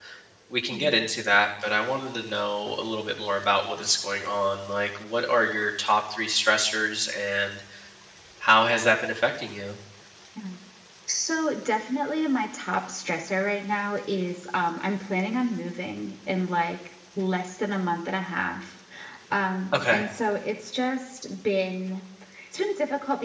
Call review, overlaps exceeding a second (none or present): none